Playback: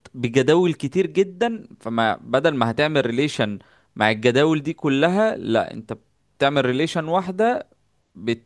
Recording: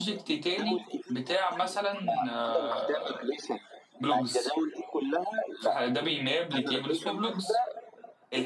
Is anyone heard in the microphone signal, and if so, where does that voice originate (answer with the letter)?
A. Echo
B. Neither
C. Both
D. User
C